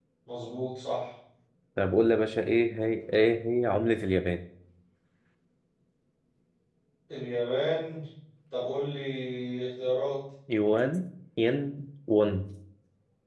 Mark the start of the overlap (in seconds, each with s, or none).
none